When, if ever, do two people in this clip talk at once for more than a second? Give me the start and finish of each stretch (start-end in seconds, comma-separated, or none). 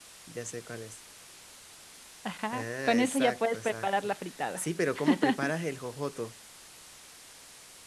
2.5-4.1